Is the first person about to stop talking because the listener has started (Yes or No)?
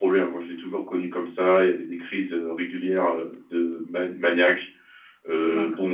No